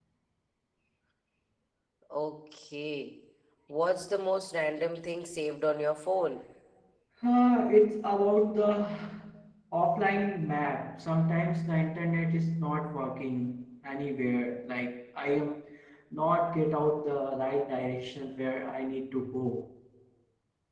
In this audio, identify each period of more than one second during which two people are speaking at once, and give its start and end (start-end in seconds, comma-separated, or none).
none